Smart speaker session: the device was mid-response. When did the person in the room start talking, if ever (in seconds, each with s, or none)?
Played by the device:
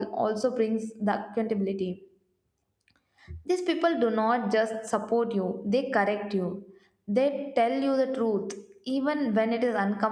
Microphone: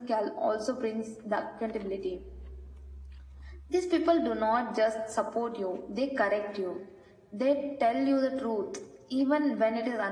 none